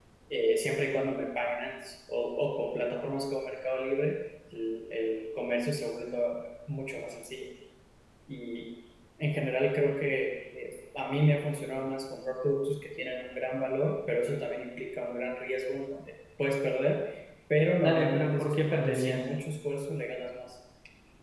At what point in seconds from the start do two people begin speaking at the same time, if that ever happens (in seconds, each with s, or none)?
17.8 s